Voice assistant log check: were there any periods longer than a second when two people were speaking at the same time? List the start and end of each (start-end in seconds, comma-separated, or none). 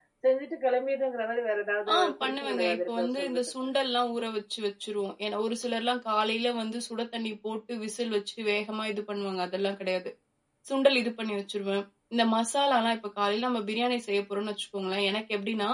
1.9-3.4